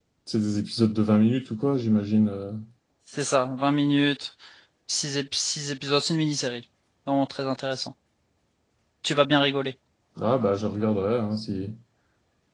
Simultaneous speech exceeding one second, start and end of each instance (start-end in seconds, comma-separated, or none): none